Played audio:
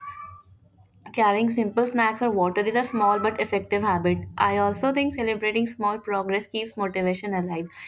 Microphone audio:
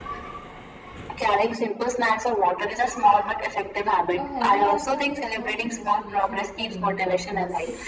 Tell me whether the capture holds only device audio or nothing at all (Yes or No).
No